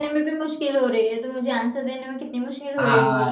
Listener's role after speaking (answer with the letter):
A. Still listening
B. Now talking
B